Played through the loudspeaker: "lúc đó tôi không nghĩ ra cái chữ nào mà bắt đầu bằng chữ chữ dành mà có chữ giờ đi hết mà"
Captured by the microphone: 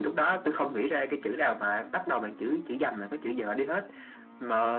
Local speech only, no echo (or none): none